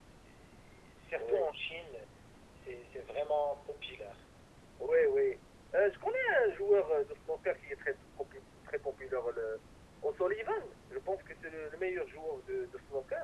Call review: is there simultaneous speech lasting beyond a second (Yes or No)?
No